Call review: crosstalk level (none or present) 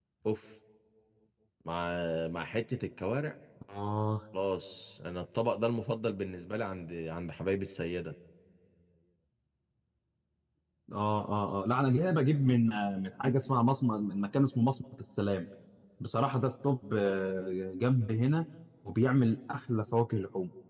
none